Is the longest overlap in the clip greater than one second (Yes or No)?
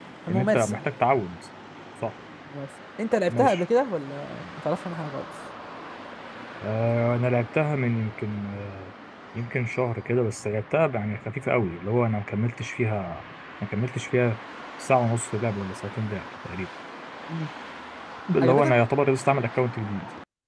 No